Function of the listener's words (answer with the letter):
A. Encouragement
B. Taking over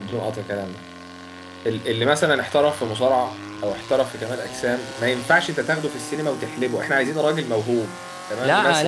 B